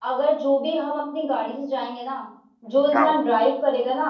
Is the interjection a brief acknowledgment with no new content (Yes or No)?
Yes